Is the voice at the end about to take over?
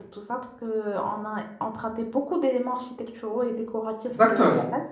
Yes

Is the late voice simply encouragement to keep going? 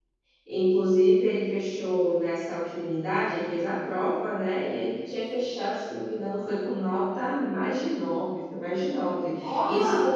Yes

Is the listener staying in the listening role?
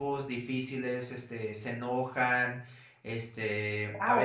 No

